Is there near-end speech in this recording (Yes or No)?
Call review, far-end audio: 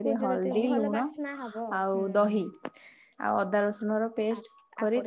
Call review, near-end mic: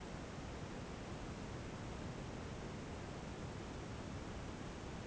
No